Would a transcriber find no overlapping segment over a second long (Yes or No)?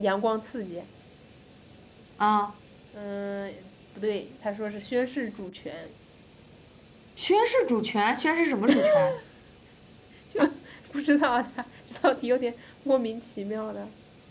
Yes